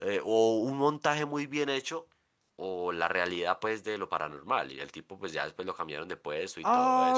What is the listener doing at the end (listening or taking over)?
taking over